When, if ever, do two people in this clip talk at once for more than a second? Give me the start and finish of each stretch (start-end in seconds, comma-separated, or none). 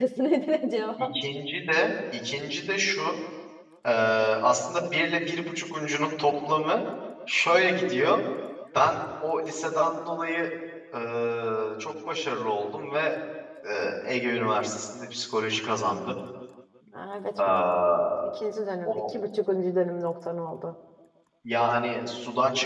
none